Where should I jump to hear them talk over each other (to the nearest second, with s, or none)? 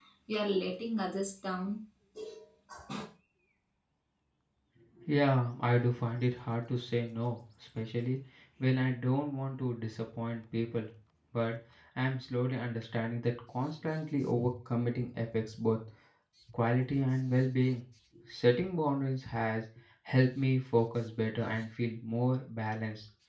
none